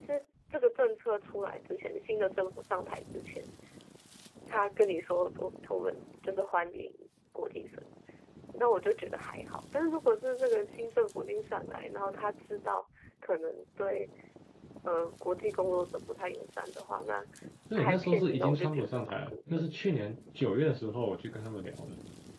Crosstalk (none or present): present